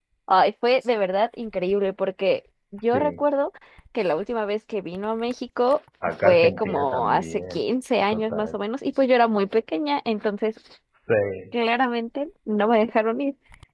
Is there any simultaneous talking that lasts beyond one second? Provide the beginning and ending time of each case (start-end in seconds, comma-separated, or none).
6.2-7.6